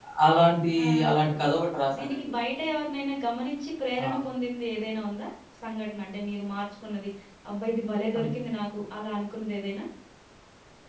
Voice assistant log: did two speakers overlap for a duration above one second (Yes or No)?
No